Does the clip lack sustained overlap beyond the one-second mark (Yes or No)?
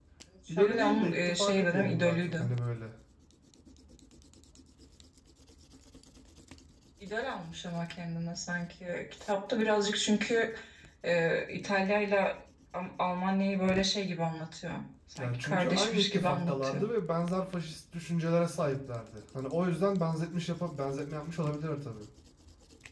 No